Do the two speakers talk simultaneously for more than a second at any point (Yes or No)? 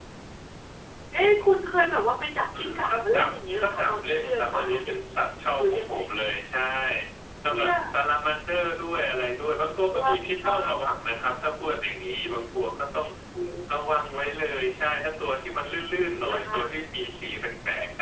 Yes